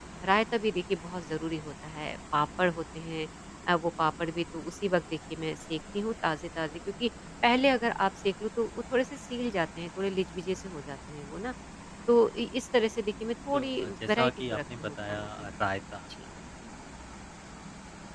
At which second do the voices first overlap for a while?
13.5 s

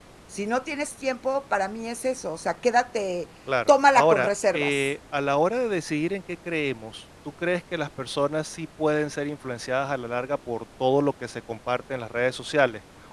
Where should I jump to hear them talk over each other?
3.5 s

